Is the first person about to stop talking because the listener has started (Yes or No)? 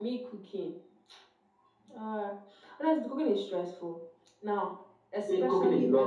Yes